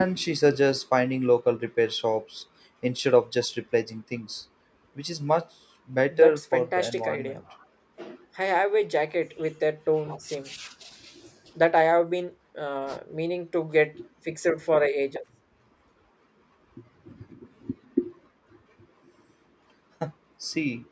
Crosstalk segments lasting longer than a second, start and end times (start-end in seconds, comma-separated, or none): 6.1-7.4